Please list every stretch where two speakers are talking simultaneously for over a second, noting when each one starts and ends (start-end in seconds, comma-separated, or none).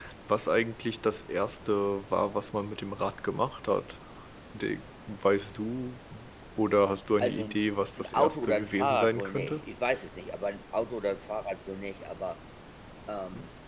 8.0-9.6